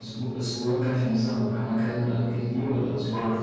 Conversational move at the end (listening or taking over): taking over